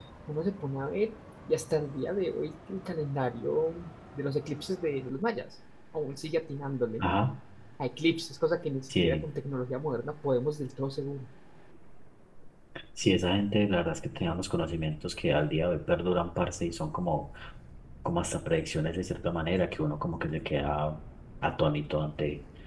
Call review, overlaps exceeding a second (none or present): none